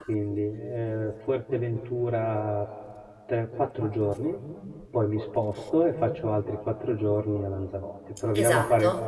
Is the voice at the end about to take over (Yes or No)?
Yes